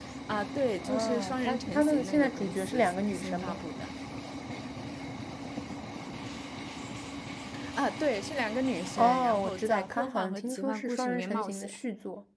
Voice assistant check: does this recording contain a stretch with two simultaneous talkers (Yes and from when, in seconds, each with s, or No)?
Yes, from 0.8 s